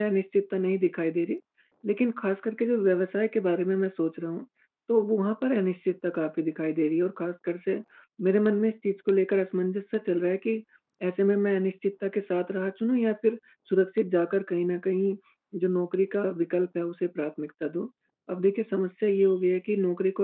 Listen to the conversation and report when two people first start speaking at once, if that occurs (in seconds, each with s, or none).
none